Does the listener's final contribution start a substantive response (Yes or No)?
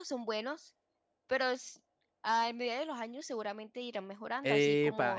Yes